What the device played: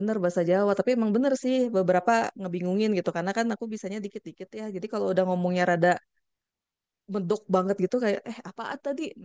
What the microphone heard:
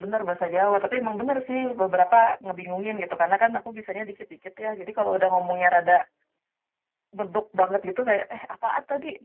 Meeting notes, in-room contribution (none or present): none